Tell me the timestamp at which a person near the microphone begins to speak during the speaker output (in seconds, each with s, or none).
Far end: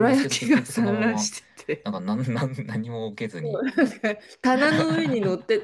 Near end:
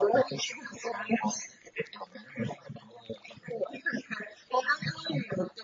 none